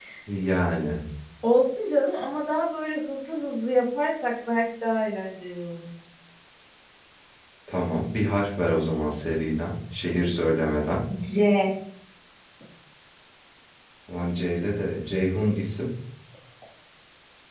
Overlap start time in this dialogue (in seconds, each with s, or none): none